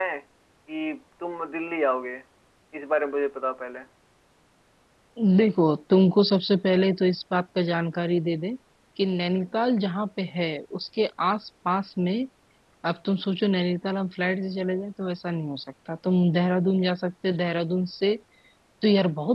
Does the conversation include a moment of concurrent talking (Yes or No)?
No